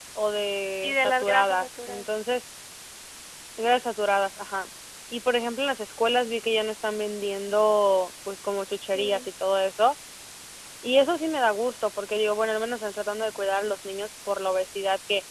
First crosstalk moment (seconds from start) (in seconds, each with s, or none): 0.8 s